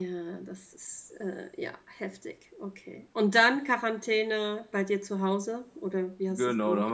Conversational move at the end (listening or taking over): taking over